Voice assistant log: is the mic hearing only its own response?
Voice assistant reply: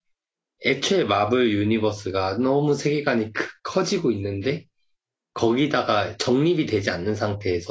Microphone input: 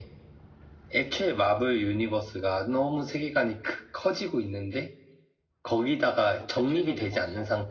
No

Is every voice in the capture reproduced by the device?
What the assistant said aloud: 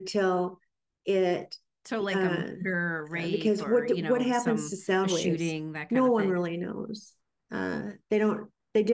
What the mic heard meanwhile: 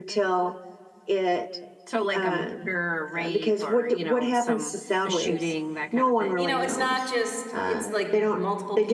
No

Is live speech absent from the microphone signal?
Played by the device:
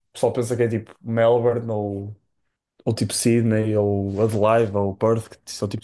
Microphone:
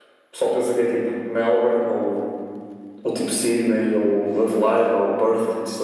Yes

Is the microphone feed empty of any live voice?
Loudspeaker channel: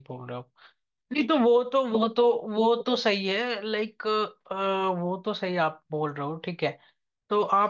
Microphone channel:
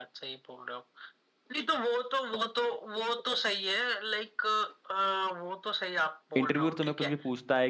No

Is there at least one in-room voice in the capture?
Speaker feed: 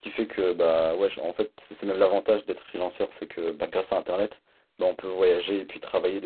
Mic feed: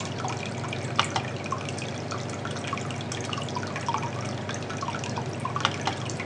No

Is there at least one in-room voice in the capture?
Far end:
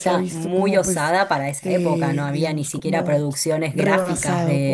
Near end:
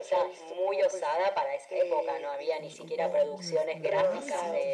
Yes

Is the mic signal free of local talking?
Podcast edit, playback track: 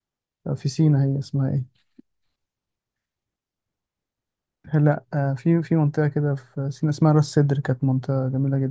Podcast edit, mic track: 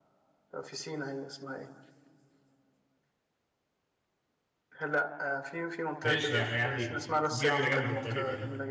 No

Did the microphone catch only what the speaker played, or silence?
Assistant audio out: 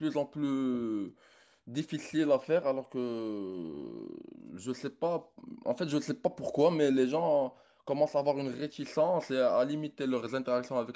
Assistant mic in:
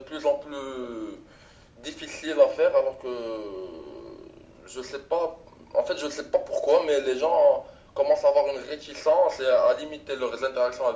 Yes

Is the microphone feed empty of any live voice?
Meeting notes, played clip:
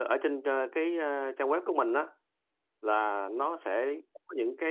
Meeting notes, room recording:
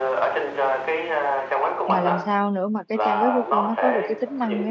No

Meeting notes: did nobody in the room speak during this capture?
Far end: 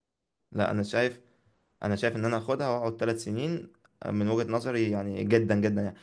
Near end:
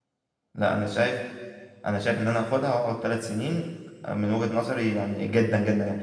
Yes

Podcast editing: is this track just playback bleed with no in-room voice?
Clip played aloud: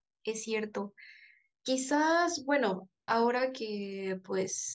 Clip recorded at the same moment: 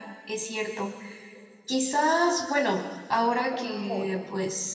No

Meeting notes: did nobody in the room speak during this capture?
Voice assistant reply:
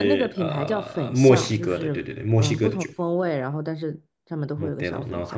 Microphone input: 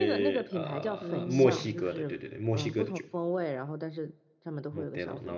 No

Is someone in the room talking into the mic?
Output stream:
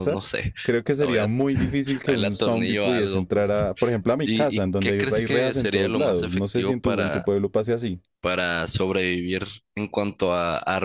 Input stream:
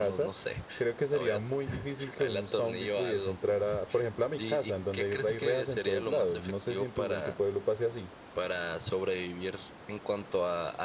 No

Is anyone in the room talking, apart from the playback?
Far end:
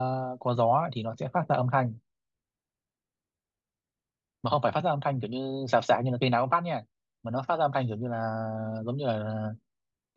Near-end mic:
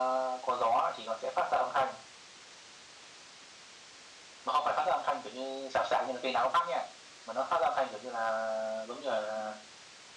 No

